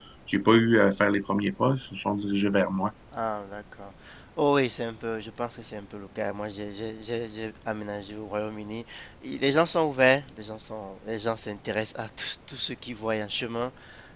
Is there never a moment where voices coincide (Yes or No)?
Yes